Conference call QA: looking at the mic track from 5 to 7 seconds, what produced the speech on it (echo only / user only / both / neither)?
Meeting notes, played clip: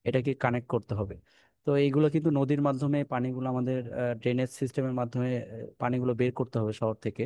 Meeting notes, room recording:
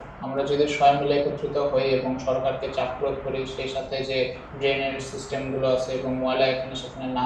user only